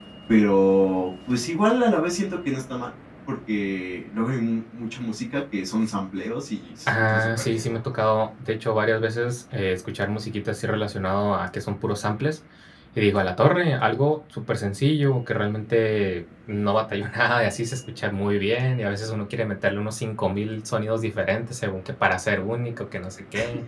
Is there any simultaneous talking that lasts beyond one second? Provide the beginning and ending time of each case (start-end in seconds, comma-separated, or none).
6.9-8.1